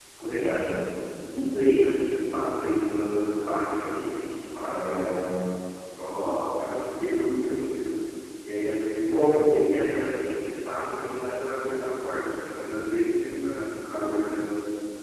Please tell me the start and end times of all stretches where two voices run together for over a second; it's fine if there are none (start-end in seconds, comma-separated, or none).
none